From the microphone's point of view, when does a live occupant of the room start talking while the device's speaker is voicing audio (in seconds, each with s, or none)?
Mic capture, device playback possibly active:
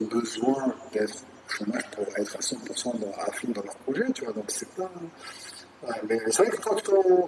none